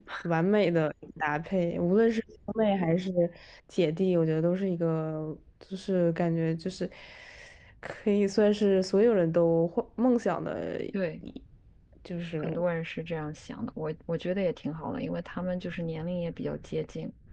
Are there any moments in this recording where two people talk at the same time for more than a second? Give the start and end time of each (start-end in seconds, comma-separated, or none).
none